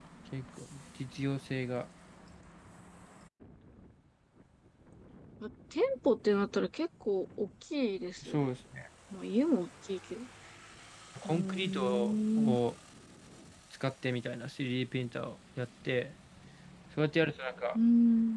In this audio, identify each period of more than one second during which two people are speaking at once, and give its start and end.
11.2-12.6

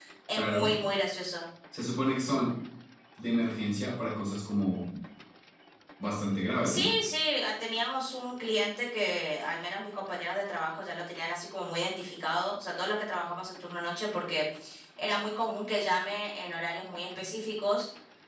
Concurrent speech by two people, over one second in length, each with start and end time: none

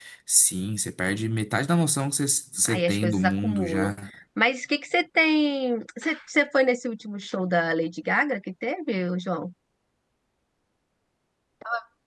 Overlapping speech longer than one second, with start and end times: 2.6-3.9

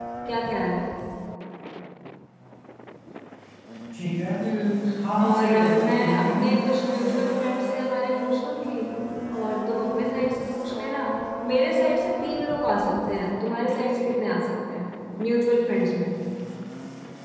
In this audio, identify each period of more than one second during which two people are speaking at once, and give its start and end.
5.2-6.5

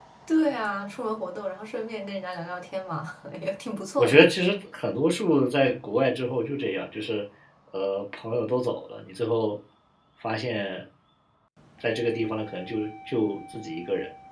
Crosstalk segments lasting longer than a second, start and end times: none

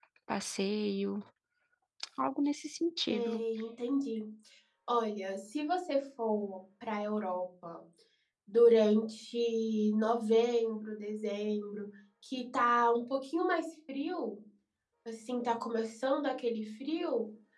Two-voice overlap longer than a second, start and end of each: none

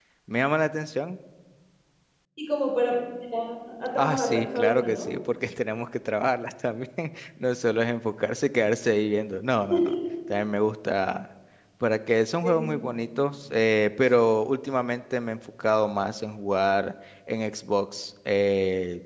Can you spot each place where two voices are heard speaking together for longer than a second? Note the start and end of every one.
4.0-5.2

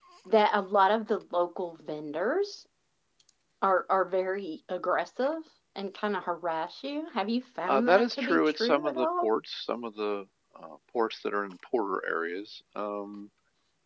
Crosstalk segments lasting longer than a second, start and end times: 7.7-9.3

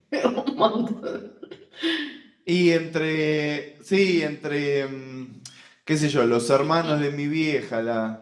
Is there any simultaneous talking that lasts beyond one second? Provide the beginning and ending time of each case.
none

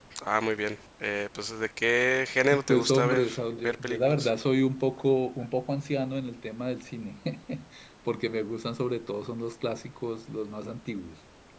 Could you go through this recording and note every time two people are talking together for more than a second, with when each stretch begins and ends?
2.7-4.3

